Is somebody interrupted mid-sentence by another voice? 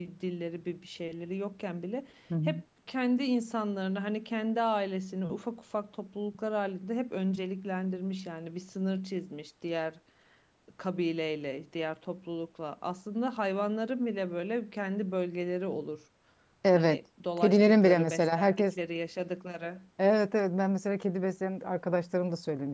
Yes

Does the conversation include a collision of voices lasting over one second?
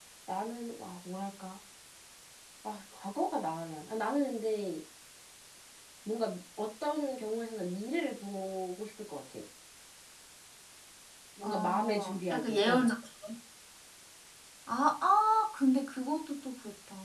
Yes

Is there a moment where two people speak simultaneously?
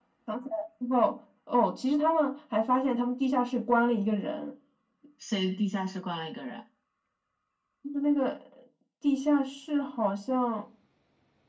No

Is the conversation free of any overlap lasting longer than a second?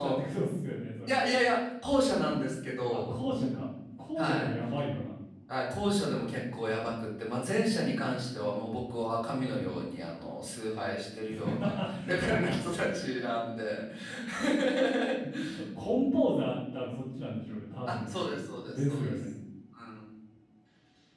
No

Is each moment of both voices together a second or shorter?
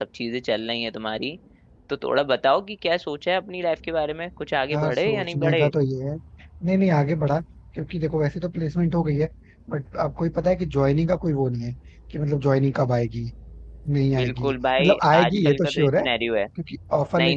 No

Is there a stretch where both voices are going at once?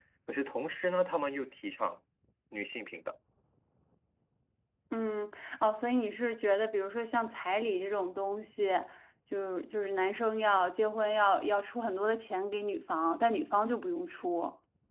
No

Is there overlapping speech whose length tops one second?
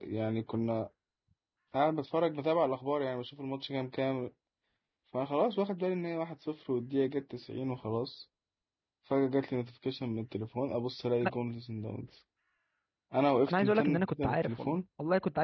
Yes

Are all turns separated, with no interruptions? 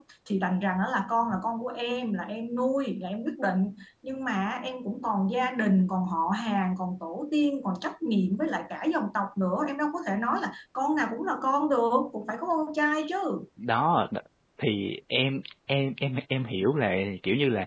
Yes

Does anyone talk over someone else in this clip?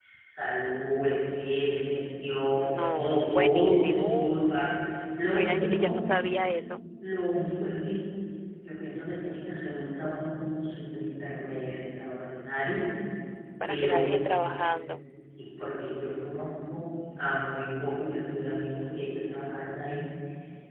Yes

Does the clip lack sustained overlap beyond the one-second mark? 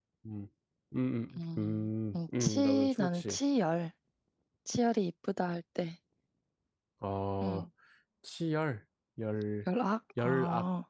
No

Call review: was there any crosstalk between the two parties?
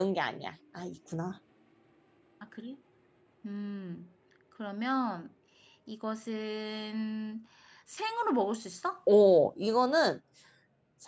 No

